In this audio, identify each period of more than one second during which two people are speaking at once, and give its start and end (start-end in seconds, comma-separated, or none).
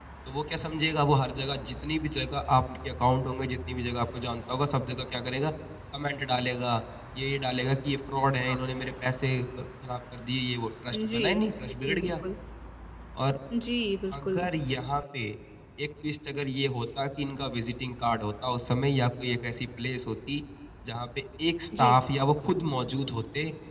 none